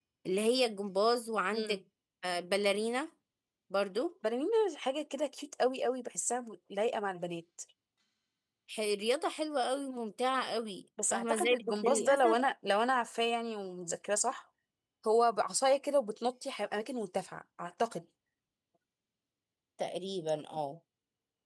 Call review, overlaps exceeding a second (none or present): present